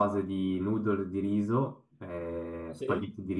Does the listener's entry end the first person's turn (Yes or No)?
No